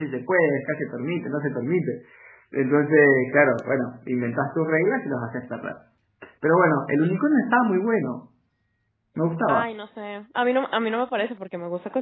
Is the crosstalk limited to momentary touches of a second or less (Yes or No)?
Yes